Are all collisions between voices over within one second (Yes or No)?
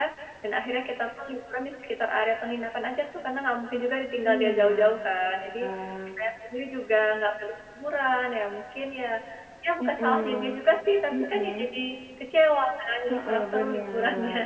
No